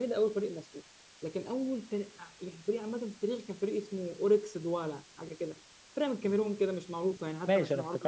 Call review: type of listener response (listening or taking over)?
taking over